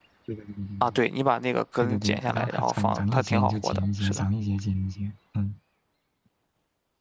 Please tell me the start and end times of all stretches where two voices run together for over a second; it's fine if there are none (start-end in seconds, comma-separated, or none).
1.8-4.2